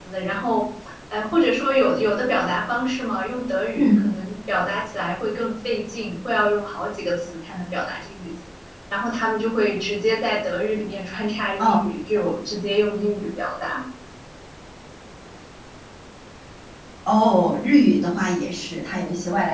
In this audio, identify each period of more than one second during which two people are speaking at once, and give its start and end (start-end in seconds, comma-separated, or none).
none